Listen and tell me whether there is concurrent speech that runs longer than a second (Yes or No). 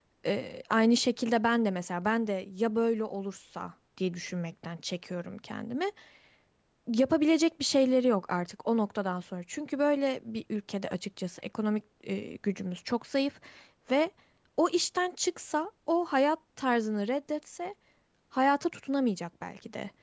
No